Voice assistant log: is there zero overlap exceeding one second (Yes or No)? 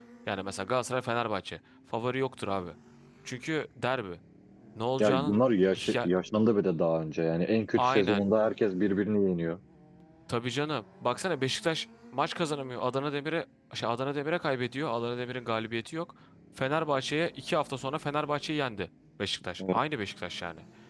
Yes